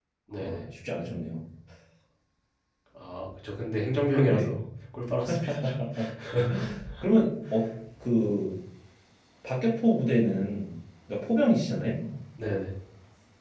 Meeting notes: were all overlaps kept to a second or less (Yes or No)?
Yes